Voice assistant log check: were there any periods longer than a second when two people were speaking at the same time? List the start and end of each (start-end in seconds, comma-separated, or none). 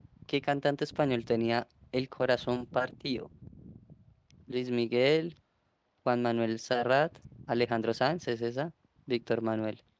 none